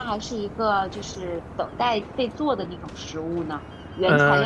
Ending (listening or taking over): taking over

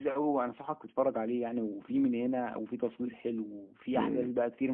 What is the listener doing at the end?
taking over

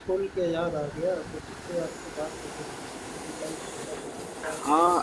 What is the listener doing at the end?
taking over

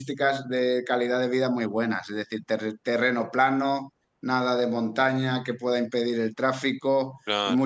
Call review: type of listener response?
listening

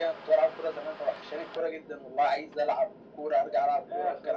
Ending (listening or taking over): taking over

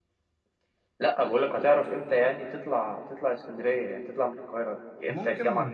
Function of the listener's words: taking over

